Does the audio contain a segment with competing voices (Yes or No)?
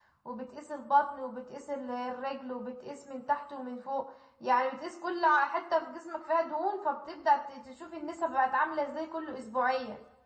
No